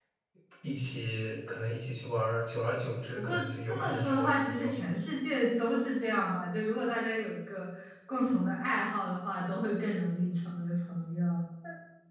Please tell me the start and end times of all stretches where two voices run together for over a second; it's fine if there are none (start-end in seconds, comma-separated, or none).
3.2-4.7